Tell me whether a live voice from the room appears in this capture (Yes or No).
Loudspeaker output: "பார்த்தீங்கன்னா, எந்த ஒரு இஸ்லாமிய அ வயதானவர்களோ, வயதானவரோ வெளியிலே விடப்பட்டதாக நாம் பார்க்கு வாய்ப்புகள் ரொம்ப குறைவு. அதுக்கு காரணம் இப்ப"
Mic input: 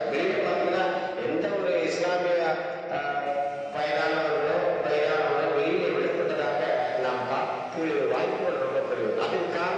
No